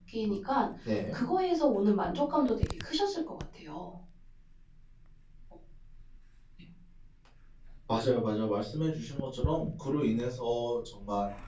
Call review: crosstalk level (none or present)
none